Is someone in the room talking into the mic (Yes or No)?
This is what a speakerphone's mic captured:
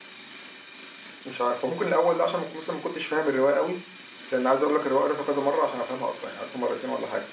Yes